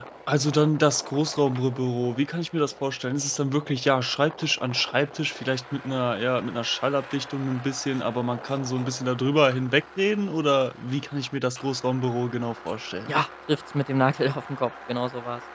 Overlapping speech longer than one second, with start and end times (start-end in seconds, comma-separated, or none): none